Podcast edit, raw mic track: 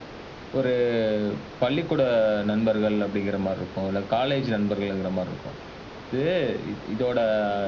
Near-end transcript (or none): none